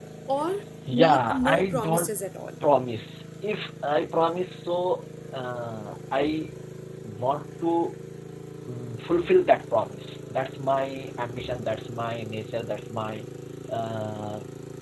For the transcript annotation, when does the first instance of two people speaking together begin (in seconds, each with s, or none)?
0.9 s